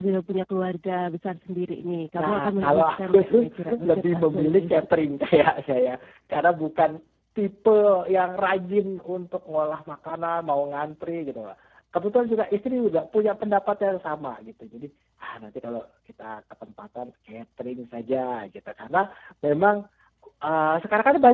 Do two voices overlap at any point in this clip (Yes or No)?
Yes